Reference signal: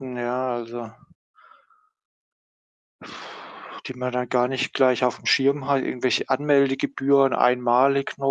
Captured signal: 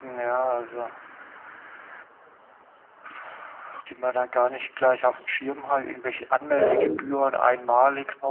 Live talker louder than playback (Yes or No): Yes